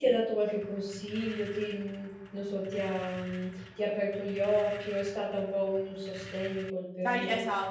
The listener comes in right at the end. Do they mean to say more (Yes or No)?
Yes